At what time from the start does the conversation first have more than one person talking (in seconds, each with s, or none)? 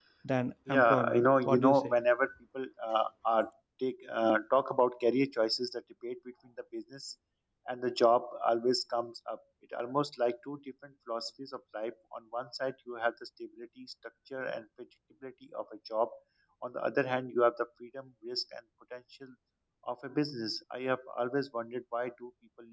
0.7 s